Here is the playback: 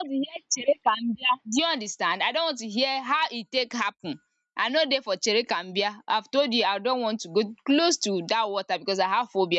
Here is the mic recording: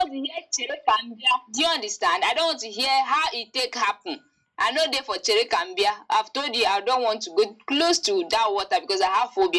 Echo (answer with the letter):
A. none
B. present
B